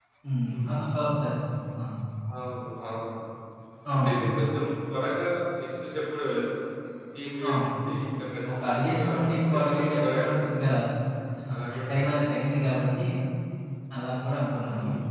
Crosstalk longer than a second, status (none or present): present